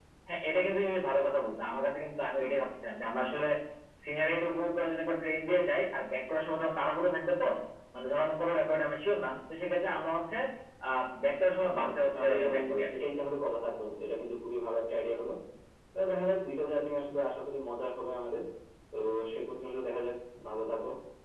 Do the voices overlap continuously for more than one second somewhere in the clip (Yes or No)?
Yes